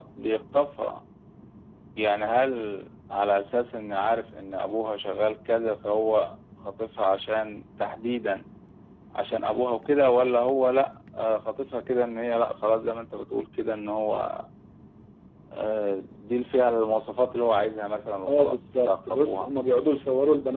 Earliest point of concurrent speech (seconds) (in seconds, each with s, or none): 18.3 s